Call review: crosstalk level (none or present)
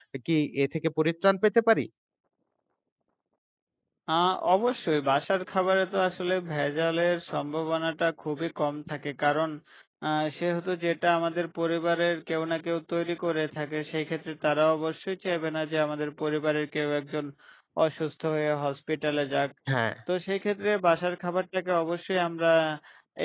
none